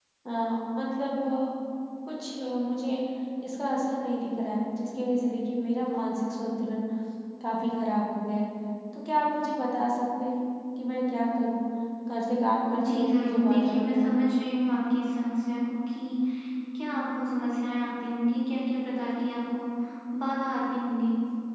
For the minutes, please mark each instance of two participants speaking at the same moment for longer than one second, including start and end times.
12.7-14.2

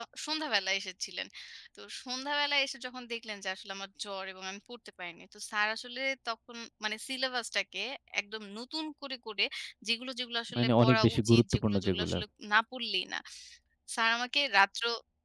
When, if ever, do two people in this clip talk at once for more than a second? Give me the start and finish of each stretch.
10.5-12.2

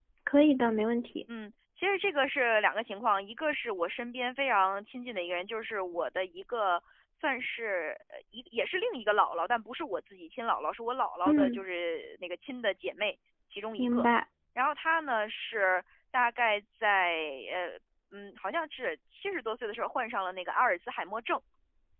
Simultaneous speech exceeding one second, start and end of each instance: none

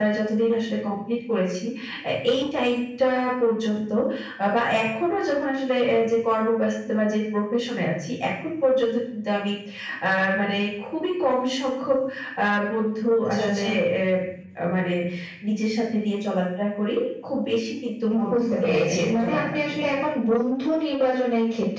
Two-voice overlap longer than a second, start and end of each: 18.3-19.8

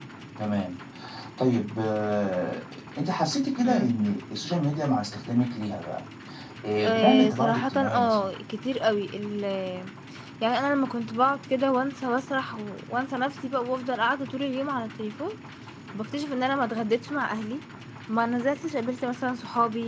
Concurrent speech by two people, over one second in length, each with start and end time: 6.8-8.3

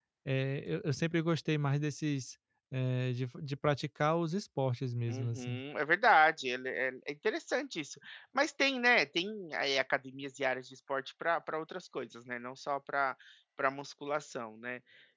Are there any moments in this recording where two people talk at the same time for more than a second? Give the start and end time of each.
none

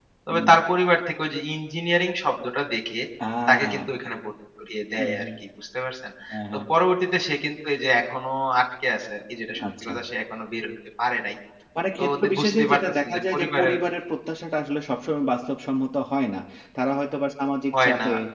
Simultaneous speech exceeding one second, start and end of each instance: 12.0-13.7

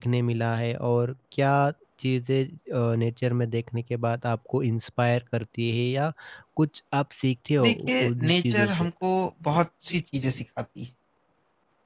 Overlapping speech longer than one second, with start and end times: 7.6-8.9

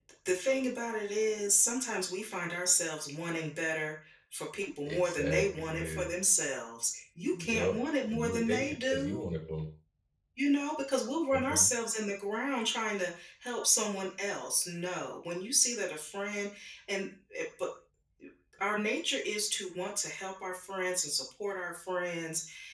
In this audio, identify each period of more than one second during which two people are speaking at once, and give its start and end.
4.8-6.1, 7.3-9.2

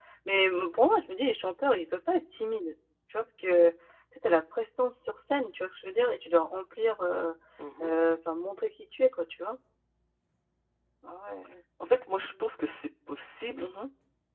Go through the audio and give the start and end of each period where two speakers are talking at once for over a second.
none

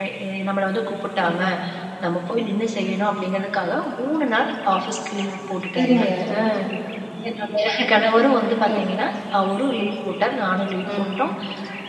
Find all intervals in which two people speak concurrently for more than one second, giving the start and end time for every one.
none

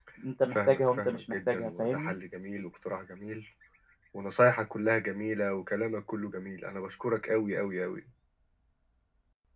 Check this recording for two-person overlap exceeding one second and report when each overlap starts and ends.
0.5-2.1

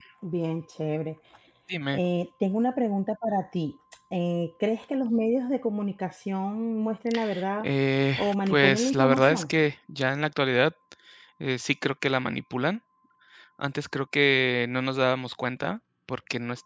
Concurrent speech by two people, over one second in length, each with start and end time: 8.2-9.5

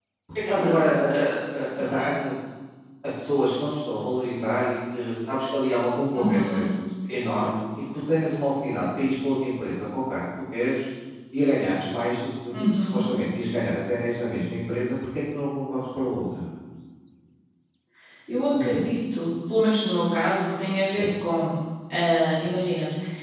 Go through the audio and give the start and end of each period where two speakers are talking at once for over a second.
none

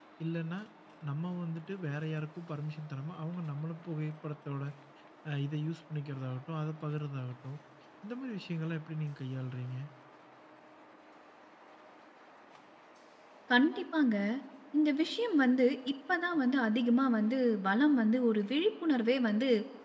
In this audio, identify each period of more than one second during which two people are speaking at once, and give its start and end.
none

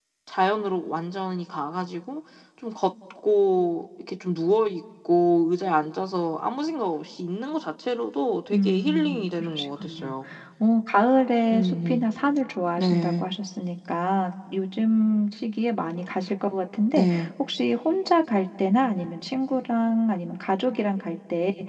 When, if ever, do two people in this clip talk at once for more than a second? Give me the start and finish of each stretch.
8.5-10.1

